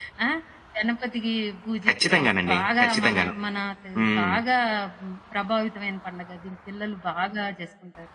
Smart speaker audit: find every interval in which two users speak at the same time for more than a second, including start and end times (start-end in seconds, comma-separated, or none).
1.9-3.3